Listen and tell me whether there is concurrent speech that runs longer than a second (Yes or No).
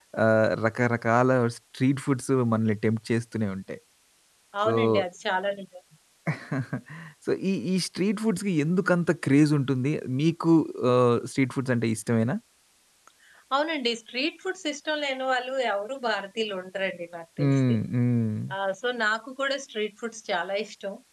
No